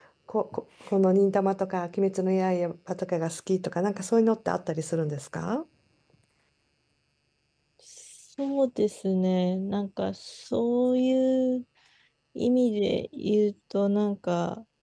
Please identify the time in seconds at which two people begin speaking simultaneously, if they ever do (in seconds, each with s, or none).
none